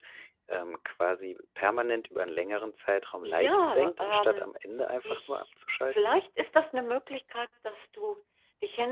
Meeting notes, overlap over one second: present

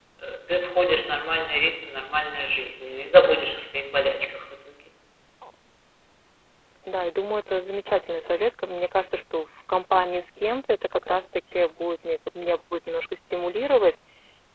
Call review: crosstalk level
none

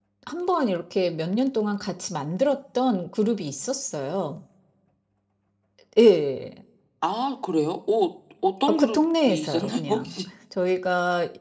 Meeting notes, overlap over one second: present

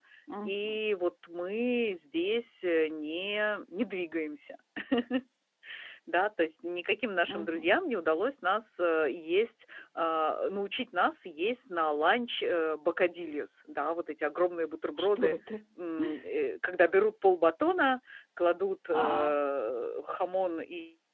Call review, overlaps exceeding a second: none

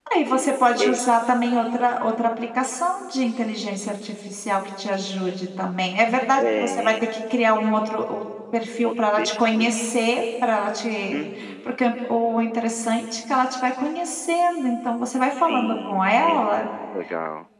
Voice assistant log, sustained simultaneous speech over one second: present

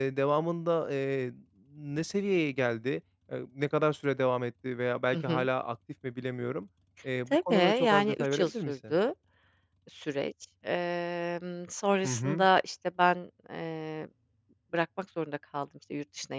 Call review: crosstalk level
present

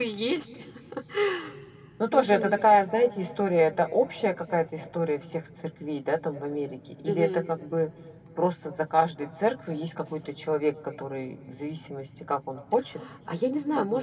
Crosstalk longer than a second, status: none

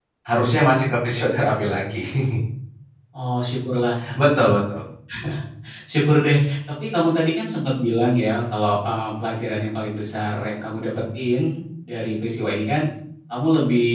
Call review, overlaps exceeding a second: none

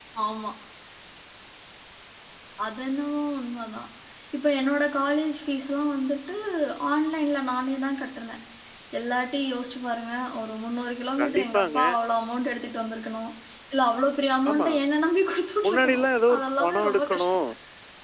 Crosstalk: present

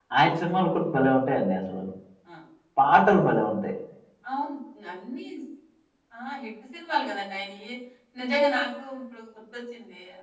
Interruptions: none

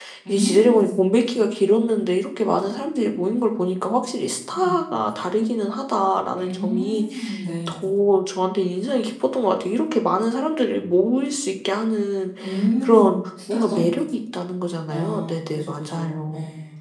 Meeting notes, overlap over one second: present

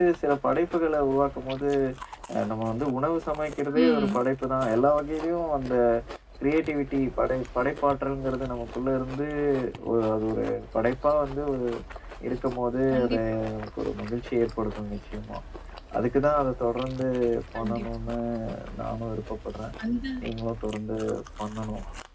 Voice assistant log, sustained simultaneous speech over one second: none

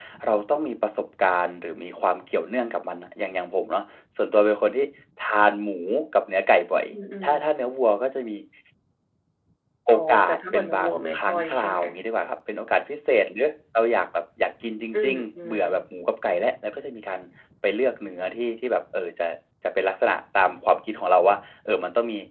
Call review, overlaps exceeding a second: present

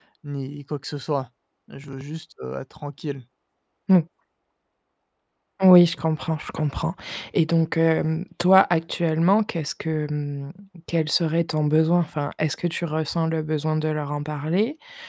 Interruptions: none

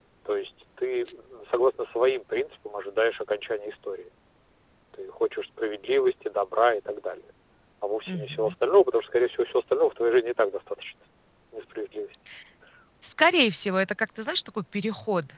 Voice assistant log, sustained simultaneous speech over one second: none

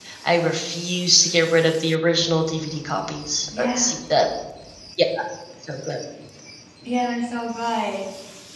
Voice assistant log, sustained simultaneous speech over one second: none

